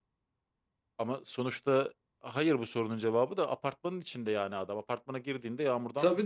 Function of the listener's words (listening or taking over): taking over